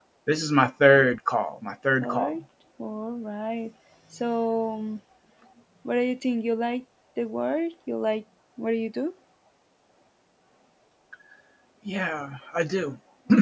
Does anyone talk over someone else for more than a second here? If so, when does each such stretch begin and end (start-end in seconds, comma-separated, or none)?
none